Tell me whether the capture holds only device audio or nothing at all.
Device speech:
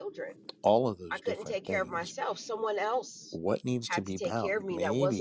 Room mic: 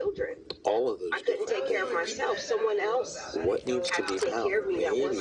No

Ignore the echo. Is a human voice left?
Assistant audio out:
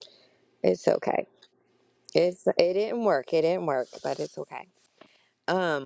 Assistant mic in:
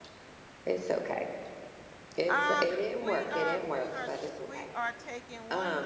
Yes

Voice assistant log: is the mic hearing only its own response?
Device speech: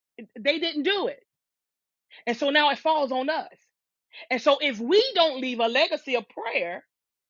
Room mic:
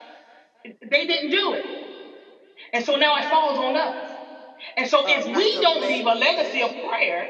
No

